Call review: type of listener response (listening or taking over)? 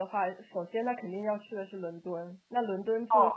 listening